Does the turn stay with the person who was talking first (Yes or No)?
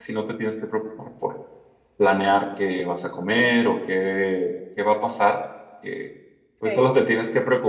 Yes